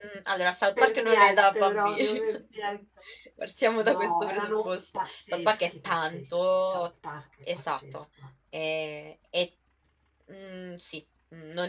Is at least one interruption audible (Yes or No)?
Yes